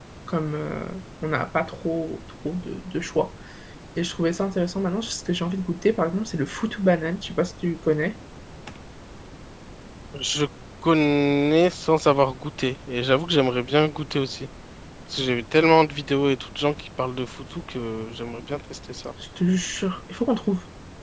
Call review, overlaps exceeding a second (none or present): none